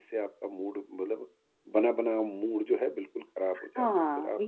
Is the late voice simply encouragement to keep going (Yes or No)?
No